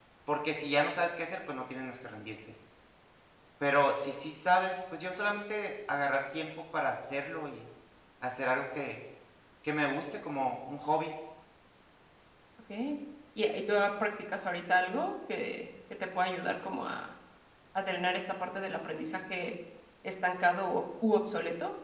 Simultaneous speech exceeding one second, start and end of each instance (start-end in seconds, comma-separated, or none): none